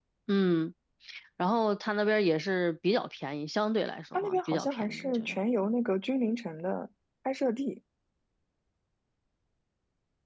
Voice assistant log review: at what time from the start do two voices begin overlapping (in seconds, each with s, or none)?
4.1 s